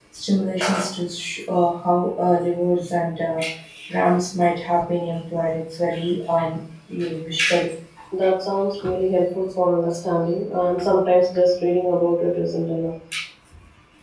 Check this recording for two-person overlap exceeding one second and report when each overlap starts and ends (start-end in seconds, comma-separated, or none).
none